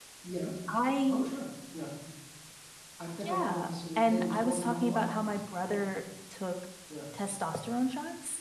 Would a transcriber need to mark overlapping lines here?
Yes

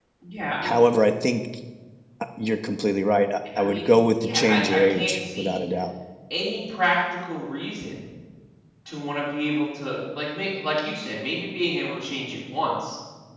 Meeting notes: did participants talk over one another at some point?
Yes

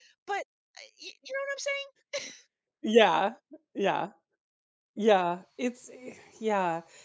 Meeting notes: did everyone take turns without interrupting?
Yes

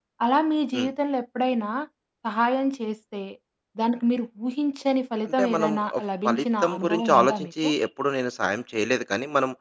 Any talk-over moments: Yes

